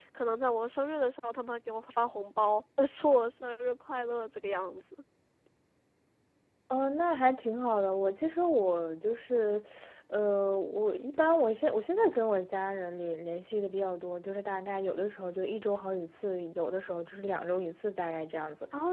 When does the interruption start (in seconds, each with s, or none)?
none